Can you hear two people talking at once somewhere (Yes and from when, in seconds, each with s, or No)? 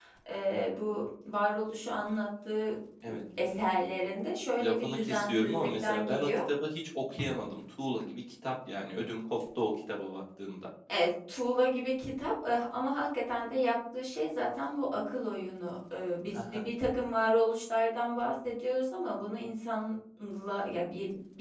Yes, from 4.6 s